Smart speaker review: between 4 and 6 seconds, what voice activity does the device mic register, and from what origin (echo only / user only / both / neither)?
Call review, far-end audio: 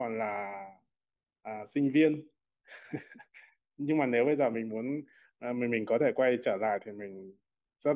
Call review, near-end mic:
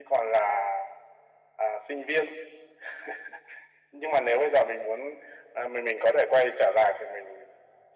echo only